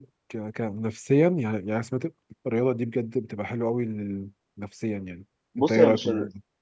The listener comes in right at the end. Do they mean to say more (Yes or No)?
Yes